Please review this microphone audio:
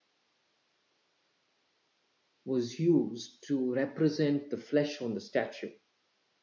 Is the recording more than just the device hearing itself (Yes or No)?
Yes